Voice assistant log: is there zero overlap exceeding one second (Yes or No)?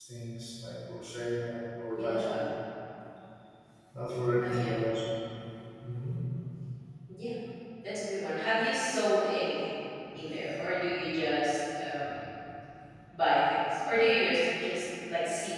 Yes